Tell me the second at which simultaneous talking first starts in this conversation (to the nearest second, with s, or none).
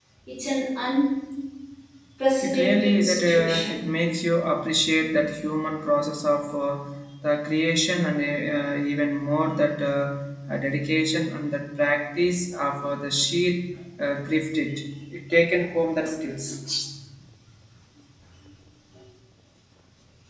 2 s